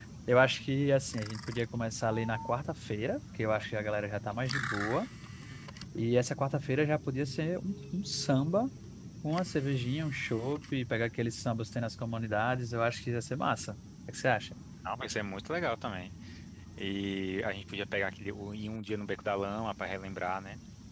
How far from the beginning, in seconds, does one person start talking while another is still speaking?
none

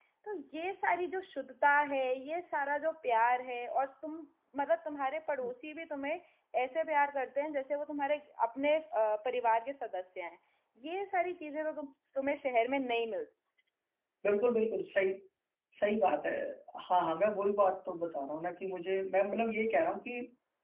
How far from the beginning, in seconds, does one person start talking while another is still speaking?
none

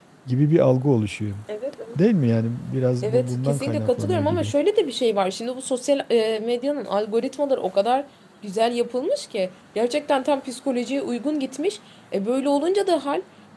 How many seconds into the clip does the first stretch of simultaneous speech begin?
3 s

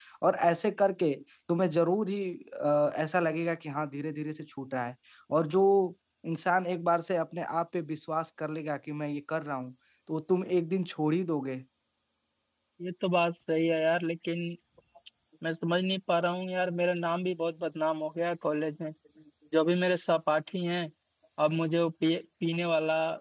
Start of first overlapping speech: none

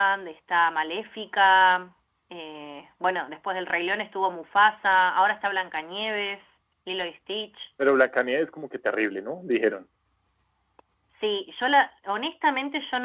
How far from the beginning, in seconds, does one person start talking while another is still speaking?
none

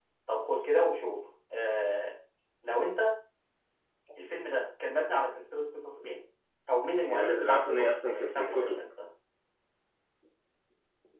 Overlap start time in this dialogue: 7 s

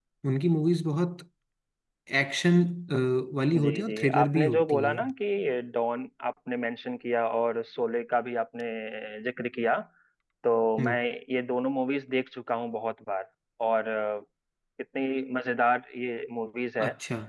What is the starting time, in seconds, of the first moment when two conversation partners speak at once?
4 s

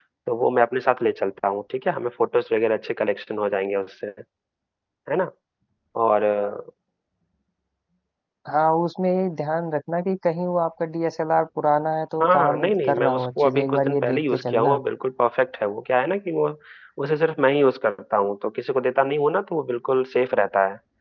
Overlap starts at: 12 s

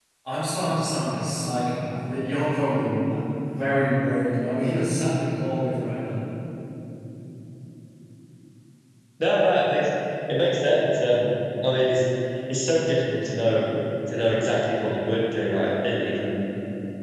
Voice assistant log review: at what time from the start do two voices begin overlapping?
none

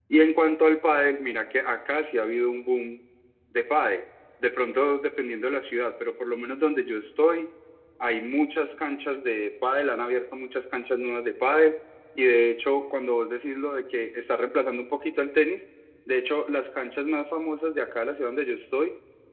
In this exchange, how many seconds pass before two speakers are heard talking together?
none

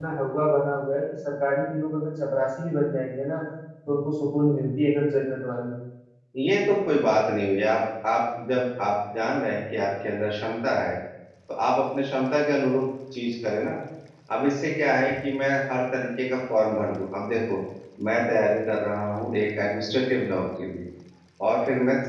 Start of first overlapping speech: none

